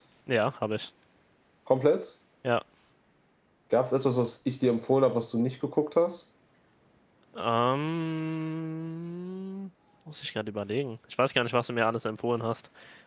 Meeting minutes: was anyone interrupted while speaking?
No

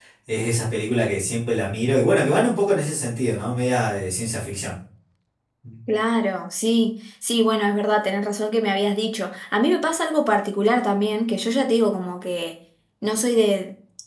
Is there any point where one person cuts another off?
No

